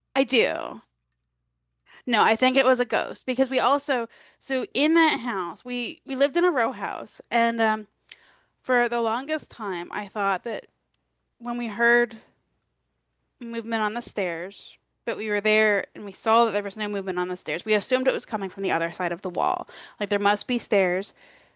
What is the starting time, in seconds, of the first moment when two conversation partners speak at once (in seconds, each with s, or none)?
none